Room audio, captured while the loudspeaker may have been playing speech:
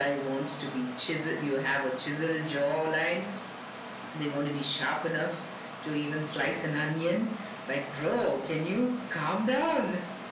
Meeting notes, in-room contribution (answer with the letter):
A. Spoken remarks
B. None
B